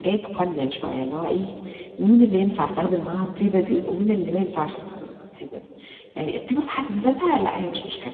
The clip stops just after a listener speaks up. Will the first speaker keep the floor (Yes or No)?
Yes